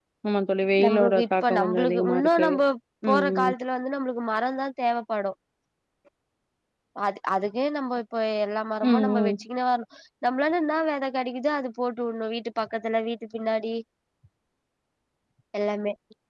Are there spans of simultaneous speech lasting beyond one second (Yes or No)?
Yes